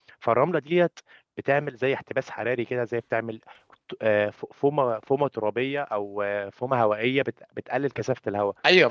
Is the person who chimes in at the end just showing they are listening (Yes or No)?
No